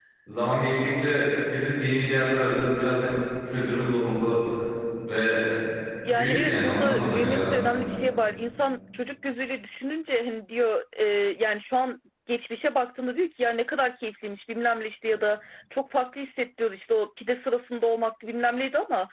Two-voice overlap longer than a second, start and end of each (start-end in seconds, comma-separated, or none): 6.0-7.7